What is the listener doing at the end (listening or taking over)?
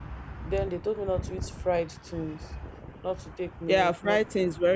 taking over